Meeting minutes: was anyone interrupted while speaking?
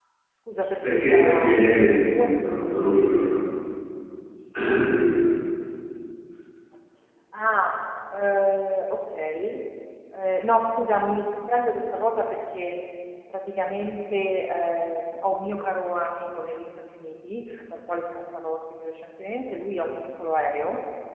Yes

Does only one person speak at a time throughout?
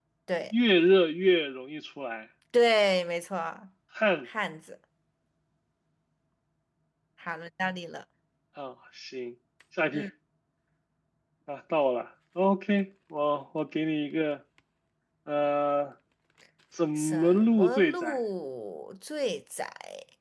No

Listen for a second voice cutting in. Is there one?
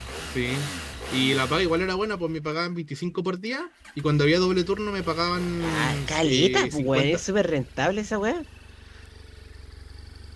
Yes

